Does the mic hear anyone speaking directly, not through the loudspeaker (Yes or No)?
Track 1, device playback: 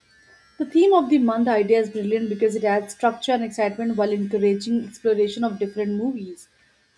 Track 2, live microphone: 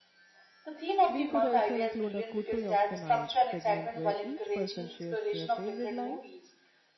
Yes